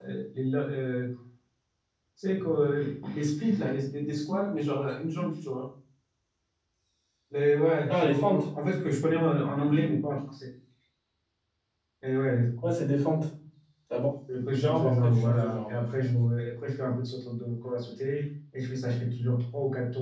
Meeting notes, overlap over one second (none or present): present